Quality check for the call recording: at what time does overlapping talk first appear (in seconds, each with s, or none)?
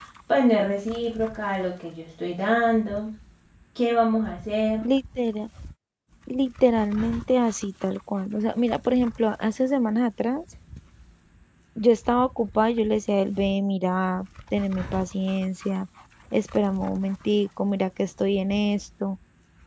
none